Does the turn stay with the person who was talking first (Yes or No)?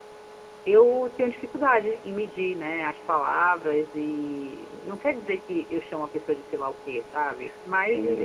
No